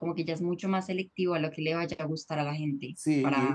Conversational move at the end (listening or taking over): taking over